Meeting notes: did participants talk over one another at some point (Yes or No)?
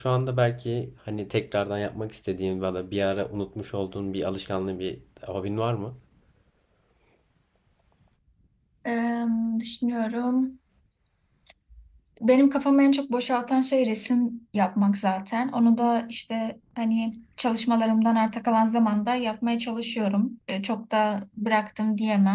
No